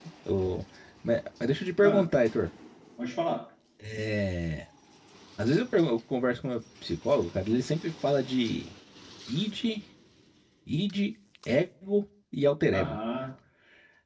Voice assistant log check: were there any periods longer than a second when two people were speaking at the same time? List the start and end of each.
none

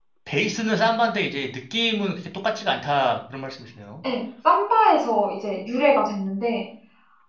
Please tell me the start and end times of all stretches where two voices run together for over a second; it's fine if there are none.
none

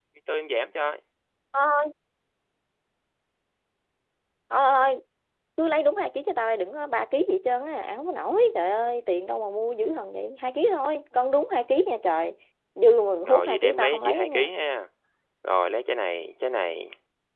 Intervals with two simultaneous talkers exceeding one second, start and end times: 13.3-14.5

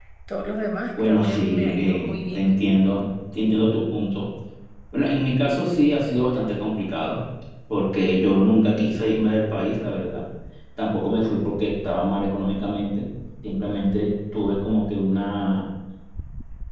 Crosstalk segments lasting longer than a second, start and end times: 1.1-2.4

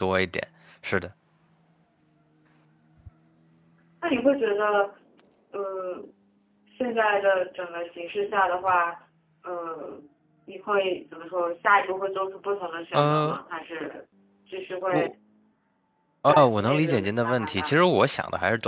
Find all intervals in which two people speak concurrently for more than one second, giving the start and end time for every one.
16.3-17.7

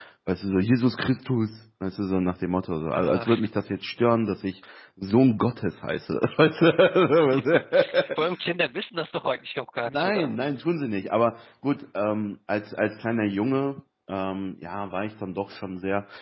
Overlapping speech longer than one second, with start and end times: none

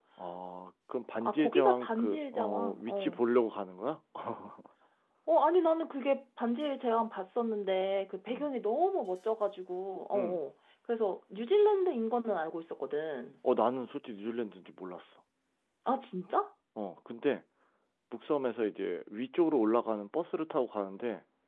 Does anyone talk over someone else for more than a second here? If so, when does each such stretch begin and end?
1.2-3.2

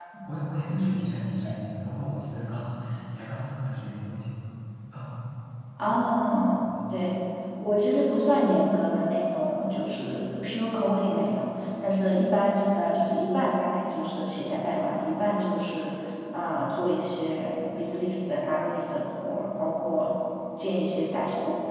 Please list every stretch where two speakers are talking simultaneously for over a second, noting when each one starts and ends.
none

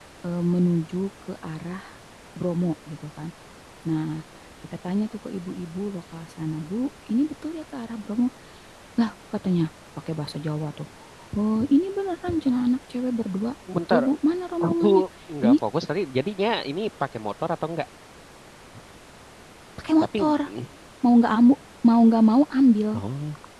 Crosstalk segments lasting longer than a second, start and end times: none

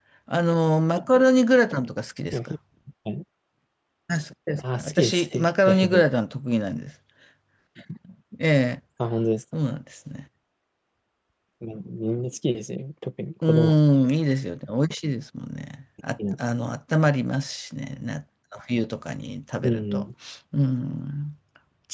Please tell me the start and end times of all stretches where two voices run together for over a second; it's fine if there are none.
4.7-6.0

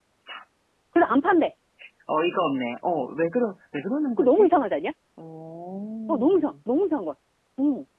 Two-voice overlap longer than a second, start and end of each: none

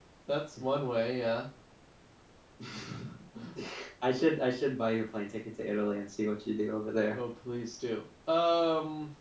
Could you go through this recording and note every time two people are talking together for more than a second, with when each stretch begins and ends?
none

